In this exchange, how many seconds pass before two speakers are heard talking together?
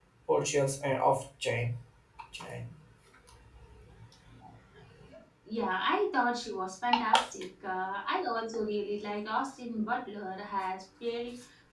none

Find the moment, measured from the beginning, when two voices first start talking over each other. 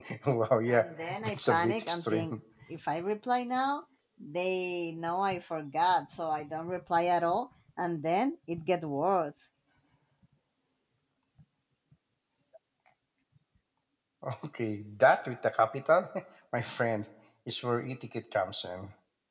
0.7 s

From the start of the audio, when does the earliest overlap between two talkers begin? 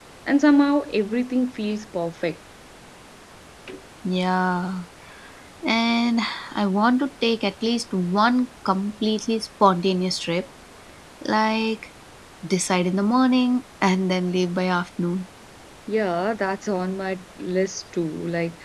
none

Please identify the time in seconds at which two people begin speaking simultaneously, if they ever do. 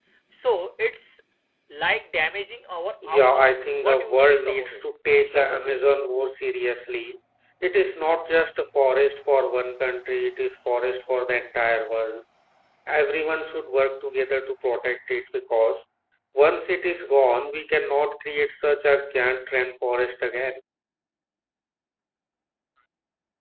3.0 s

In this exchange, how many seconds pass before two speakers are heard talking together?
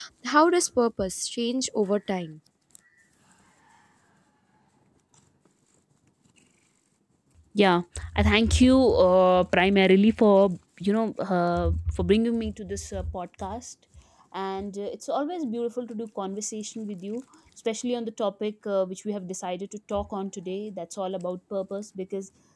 none

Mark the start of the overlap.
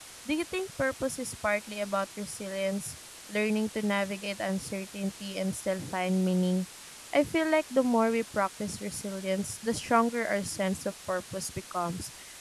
none

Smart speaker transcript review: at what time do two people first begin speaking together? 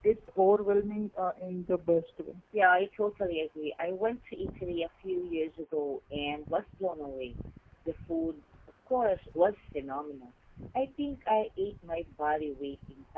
none

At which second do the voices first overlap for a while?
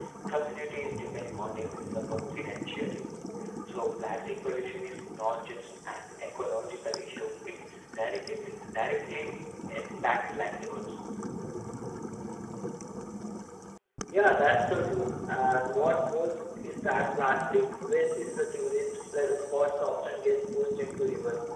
none

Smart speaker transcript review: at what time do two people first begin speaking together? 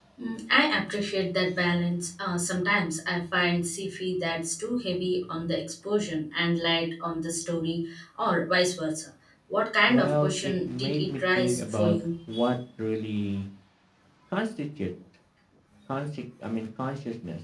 9.9 s

